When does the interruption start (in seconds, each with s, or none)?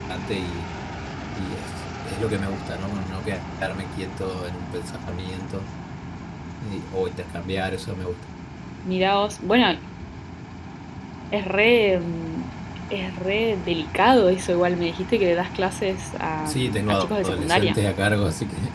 16.4 s